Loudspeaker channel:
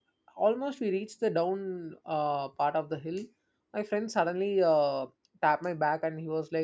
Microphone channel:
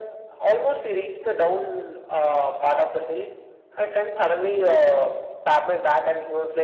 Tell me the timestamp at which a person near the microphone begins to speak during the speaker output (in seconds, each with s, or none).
none